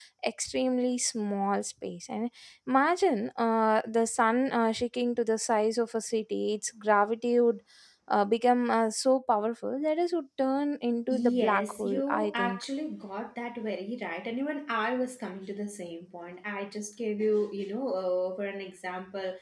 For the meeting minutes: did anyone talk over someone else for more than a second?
Yes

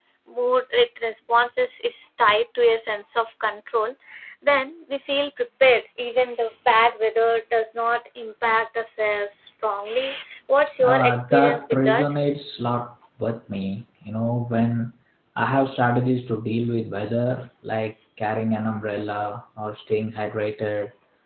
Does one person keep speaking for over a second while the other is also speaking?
Yes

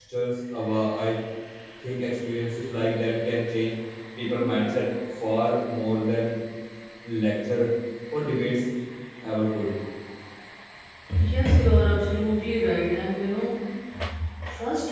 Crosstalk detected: No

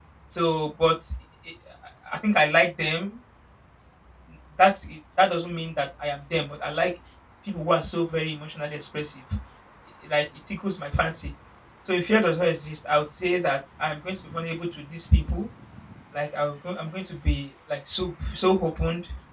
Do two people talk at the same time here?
No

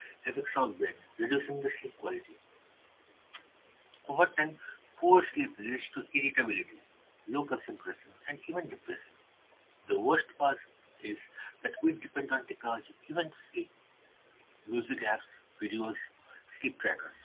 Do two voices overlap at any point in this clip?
No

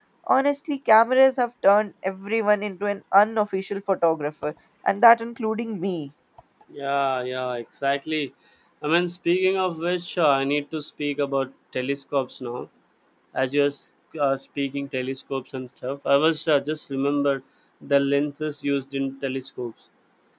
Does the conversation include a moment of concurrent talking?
No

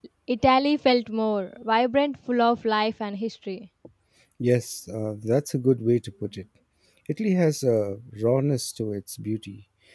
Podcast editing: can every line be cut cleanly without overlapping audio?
Yes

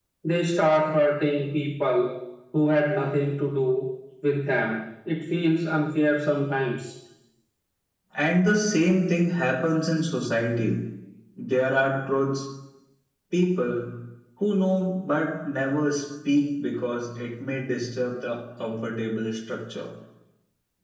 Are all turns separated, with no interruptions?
Yes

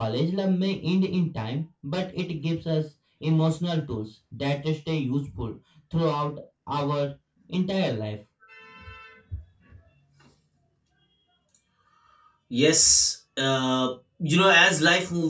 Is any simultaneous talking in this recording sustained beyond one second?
No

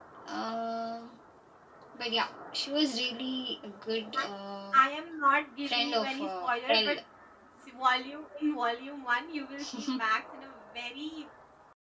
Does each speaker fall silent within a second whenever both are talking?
No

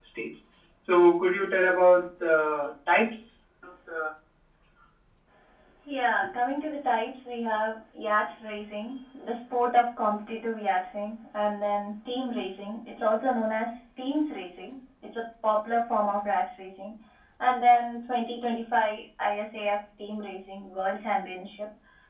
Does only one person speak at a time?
Yes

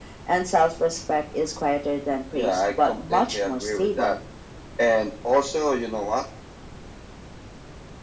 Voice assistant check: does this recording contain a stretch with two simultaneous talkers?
Yes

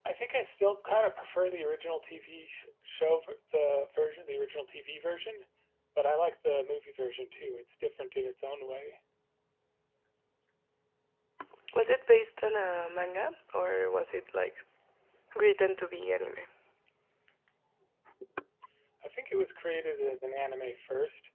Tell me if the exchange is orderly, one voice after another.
Yes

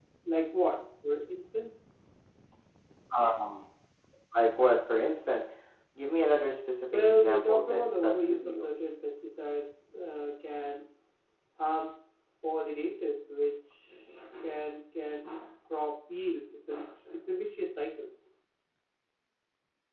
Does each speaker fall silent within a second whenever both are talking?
No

